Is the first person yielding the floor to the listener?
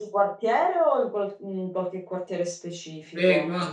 Yes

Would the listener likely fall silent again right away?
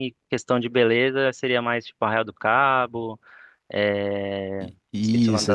No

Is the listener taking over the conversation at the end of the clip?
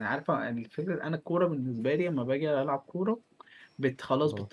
No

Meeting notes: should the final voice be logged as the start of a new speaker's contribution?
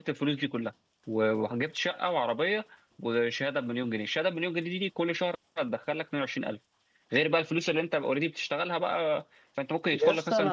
Yes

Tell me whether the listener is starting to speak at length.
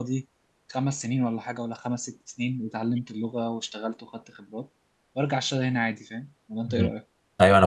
Yes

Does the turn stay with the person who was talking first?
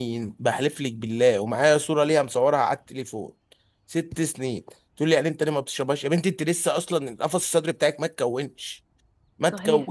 No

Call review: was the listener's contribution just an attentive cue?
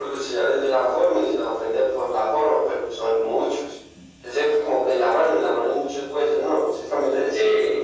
No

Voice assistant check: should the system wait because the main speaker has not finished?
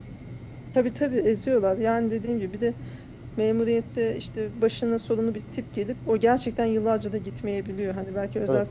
Yes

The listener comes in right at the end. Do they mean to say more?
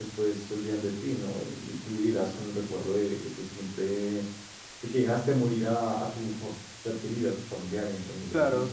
Yes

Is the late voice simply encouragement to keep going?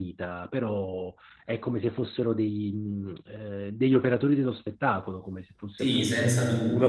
No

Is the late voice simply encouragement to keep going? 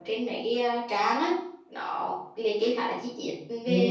No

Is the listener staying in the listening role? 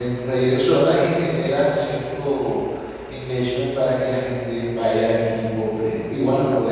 Yes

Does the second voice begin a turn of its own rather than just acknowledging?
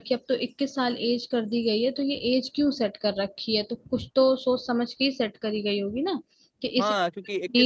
Yes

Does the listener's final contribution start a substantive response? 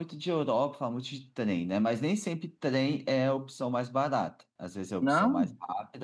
No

